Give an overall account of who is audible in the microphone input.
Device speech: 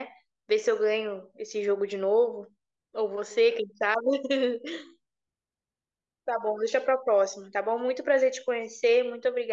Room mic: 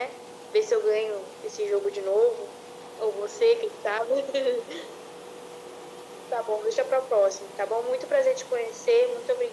echo only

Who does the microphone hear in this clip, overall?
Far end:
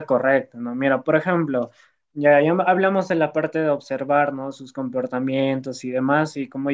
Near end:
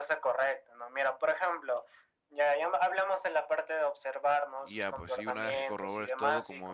both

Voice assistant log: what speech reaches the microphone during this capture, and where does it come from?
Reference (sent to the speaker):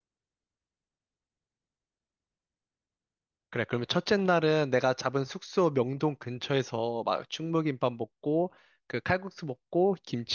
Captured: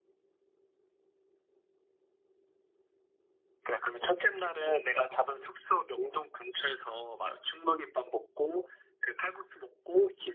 echo only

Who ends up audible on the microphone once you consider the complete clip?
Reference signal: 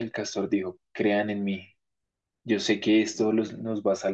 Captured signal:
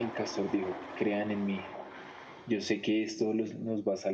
echo only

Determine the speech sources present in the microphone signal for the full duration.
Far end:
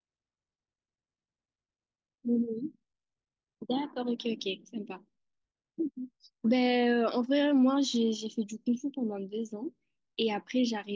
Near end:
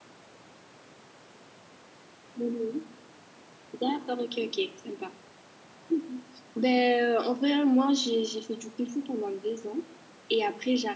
echo only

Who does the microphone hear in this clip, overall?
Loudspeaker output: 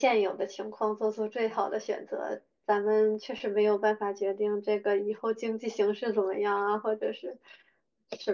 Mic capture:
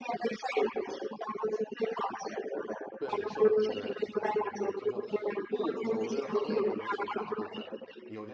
both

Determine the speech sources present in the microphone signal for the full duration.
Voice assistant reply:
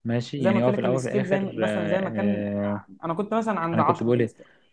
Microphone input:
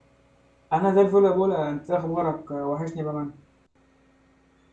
user only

